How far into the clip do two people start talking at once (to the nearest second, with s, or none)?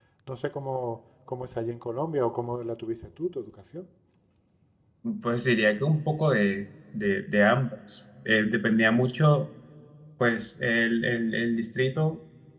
none